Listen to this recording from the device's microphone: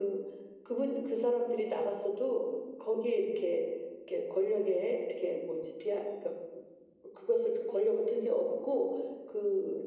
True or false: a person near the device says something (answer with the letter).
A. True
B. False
B